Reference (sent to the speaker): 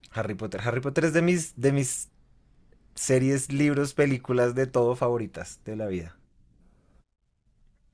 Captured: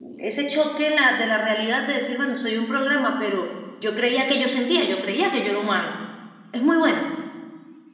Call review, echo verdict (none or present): none